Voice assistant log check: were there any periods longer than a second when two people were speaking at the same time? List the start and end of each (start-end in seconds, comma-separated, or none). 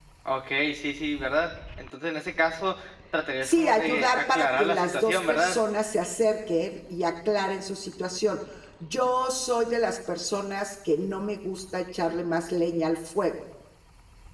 3.4-5.6